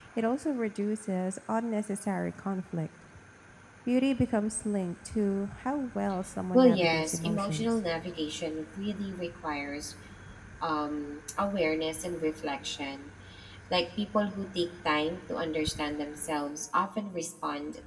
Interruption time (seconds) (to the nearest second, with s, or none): 7 s